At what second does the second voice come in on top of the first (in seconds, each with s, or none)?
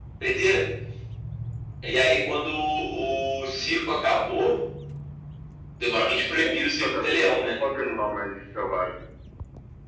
6.3 s